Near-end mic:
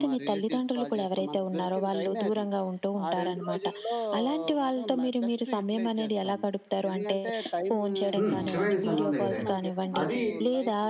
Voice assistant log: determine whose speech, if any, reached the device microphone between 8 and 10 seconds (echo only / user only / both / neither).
both